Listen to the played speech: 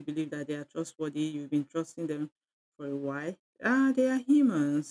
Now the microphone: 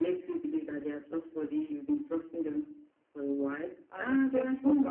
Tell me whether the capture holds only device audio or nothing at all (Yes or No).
No